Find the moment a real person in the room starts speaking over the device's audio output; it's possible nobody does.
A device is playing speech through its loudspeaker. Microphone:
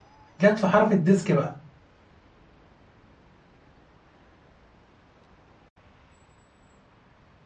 0 s

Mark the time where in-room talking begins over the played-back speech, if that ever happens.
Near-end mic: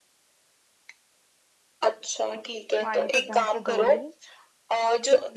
3 s

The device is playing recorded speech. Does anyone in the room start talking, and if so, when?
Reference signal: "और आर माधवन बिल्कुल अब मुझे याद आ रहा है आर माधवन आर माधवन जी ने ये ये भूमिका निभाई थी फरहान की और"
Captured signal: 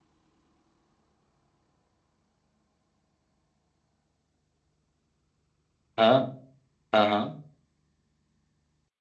6 s

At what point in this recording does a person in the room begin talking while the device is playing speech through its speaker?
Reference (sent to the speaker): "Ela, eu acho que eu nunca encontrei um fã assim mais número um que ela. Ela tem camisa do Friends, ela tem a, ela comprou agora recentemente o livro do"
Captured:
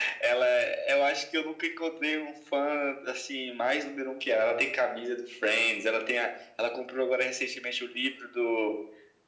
none

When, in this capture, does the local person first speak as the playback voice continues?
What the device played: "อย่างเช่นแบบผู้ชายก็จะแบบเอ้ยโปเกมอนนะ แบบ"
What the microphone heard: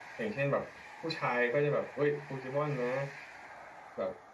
none

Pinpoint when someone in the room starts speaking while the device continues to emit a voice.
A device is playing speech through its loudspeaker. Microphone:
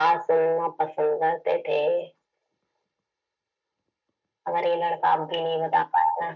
none

